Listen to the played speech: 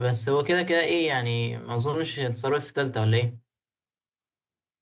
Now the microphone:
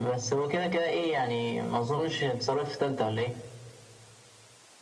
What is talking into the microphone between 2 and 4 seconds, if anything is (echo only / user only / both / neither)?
echo only